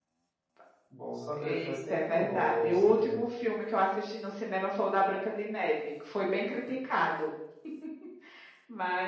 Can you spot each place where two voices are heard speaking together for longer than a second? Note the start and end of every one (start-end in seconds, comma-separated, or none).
1.4-3.3